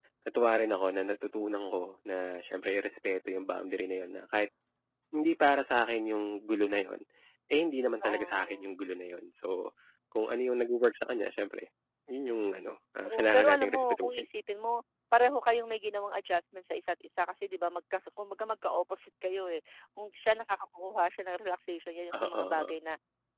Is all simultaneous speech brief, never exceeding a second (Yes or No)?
No